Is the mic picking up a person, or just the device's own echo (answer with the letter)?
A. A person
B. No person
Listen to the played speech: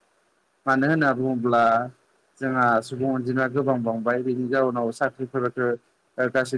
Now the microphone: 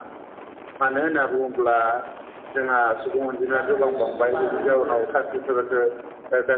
A